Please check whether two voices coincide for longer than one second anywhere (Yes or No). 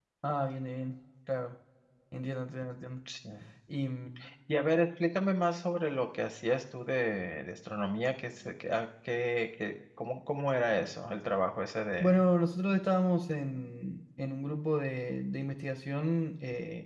No